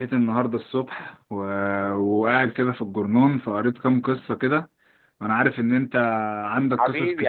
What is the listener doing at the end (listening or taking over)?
taking over